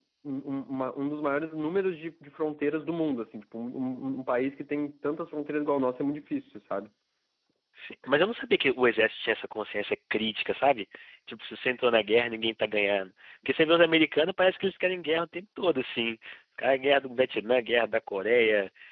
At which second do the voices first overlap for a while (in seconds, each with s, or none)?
none